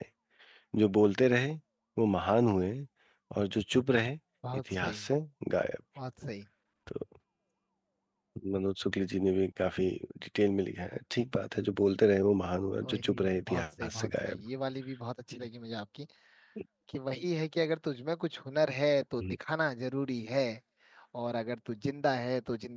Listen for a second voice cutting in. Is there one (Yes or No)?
Yes